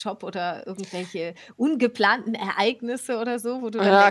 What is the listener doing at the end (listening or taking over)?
taking over